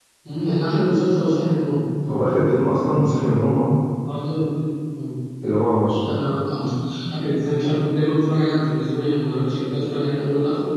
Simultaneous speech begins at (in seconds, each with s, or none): none